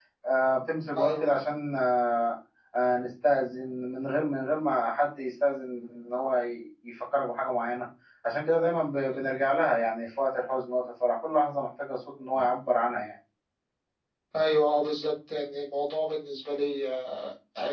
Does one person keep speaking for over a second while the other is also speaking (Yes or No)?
No